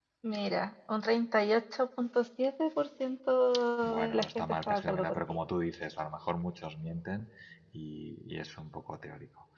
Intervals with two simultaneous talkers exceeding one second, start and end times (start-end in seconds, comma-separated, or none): 4.0-5.4